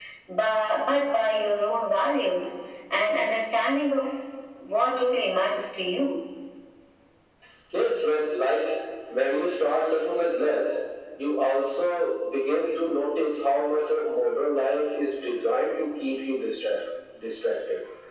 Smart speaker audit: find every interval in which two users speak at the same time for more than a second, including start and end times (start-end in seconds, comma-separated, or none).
none